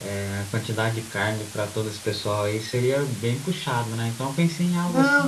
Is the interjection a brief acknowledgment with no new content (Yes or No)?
No